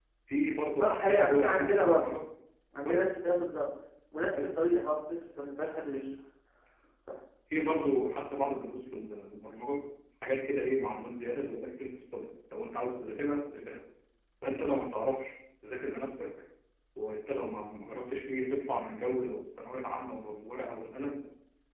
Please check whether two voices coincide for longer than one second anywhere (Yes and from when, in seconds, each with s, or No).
Yes, from 0.8 s